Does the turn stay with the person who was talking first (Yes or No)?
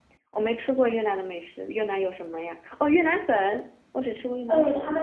No